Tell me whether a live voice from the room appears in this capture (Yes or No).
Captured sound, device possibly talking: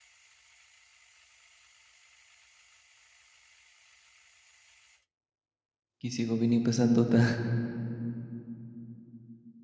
Yes